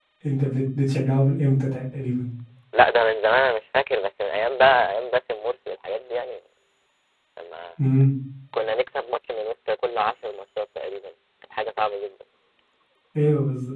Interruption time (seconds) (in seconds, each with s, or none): none